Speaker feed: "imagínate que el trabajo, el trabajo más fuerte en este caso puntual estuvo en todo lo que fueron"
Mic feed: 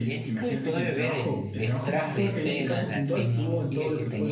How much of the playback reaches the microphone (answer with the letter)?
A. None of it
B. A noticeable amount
B